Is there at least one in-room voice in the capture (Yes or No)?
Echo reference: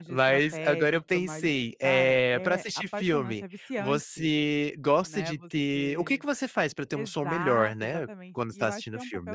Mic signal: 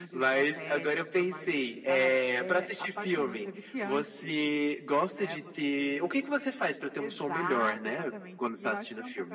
No